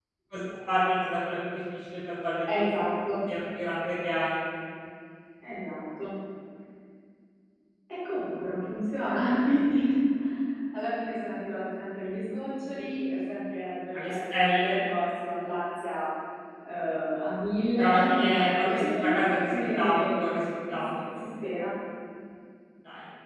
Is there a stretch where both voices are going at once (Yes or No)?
Yes